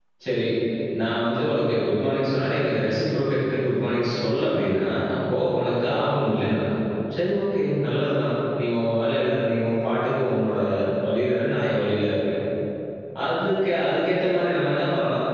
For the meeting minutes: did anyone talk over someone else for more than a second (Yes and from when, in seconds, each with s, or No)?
No